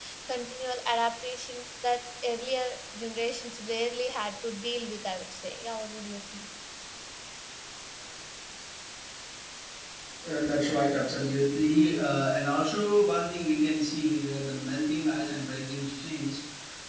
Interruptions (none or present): none